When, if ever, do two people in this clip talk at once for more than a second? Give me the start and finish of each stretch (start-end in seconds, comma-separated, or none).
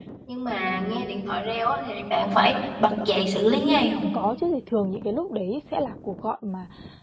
none